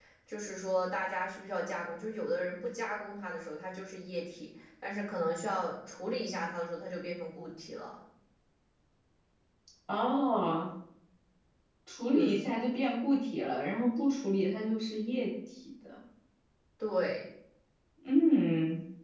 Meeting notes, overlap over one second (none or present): none